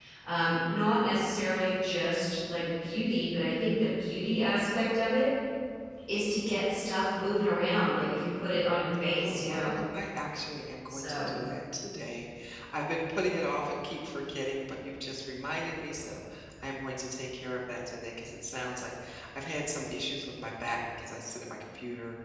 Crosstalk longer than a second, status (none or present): none